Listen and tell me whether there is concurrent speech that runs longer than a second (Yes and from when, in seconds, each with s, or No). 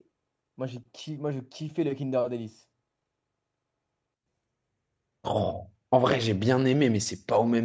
No